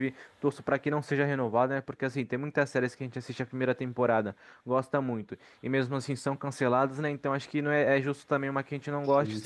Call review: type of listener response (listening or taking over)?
listening